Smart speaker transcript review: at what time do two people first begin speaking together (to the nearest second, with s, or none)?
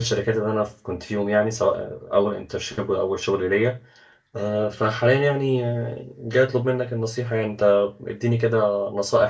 none